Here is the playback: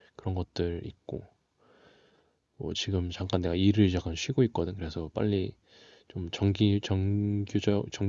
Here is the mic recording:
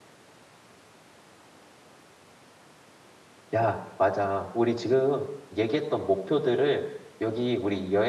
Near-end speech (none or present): present